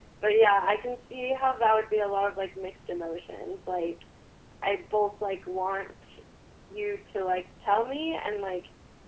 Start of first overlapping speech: none

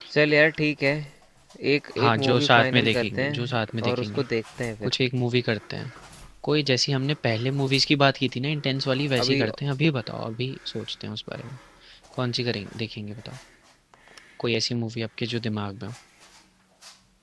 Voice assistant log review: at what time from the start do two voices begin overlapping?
2.0 s

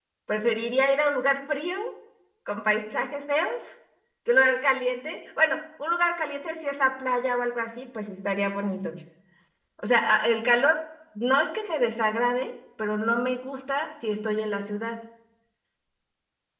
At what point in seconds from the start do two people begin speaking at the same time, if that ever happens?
none

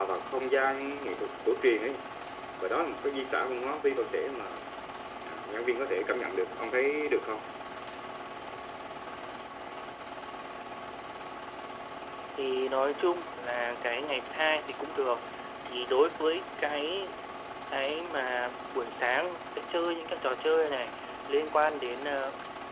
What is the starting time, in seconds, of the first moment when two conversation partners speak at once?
none

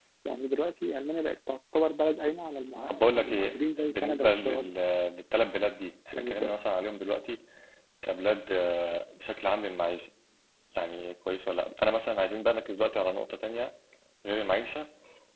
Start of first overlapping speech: 2.9 s

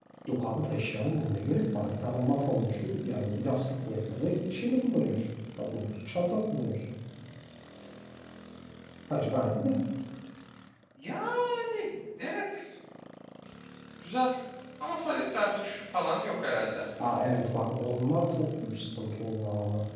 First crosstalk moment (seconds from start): none

